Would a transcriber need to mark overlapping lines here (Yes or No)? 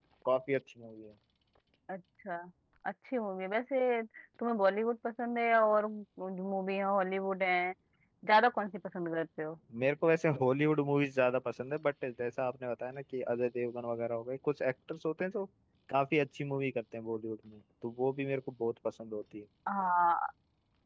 No